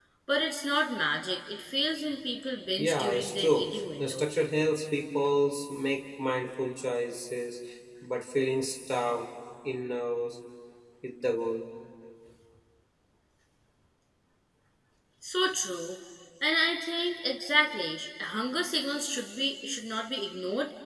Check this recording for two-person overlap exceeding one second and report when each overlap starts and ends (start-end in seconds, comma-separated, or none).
2.8-4.3